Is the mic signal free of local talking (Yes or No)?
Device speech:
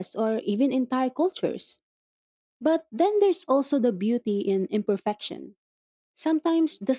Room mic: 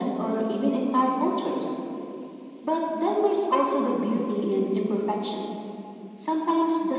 Yes